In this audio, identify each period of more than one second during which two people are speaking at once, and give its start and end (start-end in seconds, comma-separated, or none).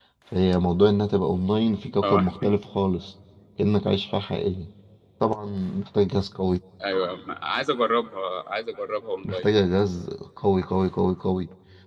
none